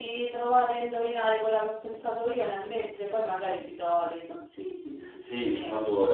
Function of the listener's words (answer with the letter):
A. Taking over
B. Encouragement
A